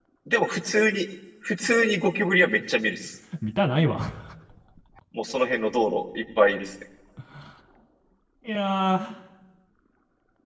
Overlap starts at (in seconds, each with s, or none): none